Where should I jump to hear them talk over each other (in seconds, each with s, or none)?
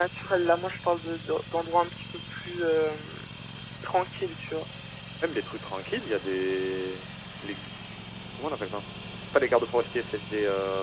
none